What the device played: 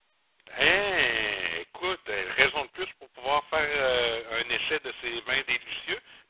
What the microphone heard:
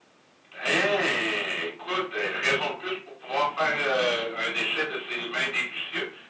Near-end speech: none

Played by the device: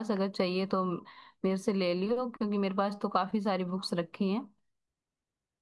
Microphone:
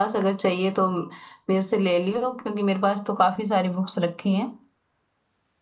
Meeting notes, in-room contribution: none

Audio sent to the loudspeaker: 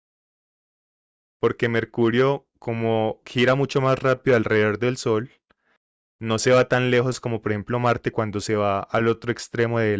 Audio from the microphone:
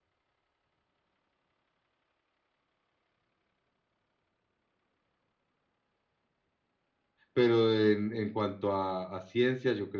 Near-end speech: present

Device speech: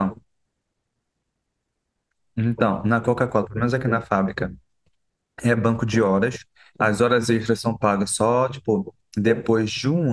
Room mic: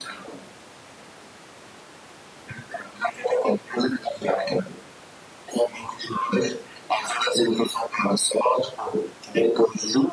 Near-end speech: none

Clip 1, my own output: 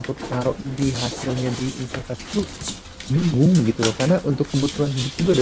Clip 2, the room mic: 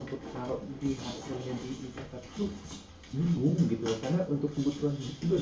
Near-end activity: none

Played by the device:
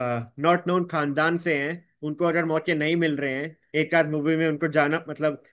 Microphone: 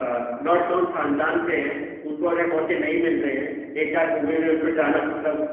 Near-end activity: none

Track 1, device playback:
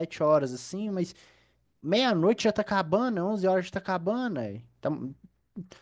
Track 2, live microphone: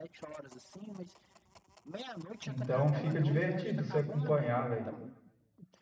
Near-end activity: present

